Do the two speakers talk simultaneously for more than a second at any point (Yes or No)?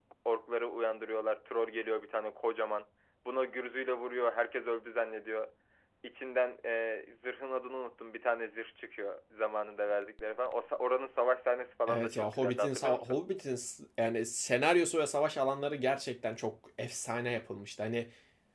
Yes